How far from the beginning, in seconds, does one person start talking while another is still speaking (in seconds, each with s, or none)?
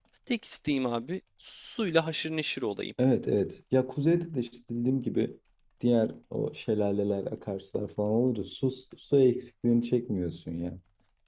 none